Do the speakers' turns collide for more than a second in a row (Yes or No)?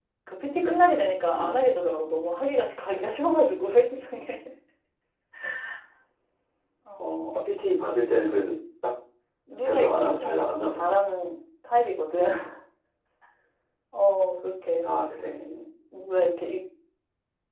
Yes